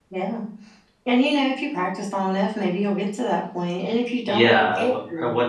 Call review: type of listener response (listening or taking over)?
taking over